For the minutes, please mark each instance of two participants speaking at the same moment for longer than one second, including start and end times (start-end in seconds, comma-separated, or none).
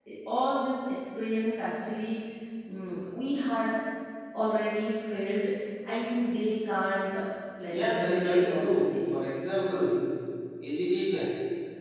7.7-9.2